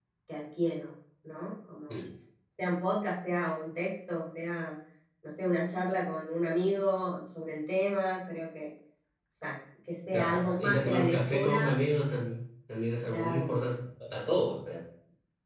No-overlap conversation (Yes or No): No